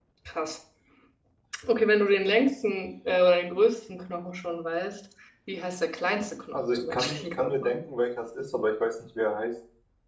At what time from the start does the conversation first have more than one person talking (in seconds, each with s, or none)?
6.5 s